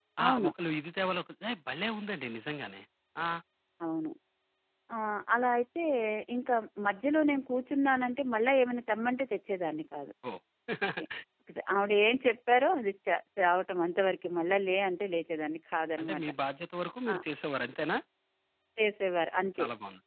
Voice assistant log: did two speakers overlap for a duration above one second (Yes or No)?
No